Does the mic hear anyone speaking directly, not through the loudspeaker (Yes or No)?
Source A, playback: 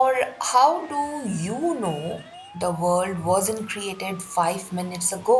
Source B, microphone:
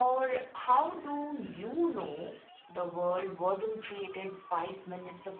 No